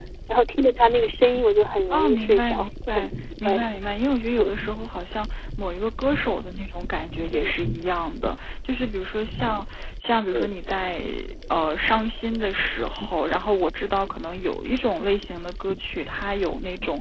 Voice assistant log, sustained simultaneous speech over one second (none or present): present